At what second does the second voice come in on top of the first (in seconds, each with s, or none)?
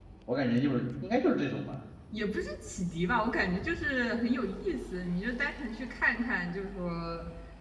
none